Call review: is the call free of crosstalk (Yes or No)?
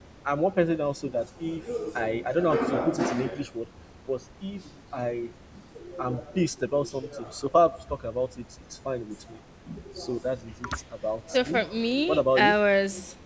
No